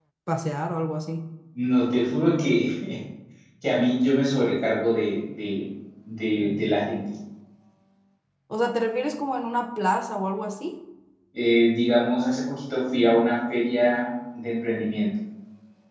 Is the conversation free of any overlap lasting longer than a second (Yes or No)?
Yes